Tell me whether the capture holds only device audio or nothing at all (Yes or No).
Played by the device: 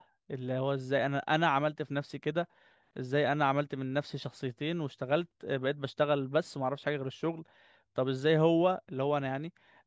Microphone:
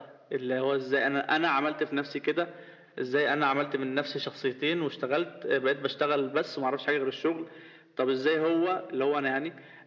Yes